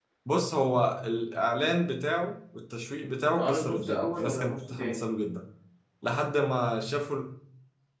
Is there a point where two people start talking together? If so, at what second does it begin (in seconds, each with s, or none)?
3.4 s